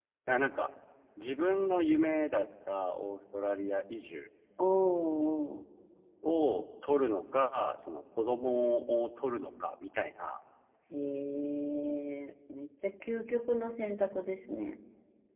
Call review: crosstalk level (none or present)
none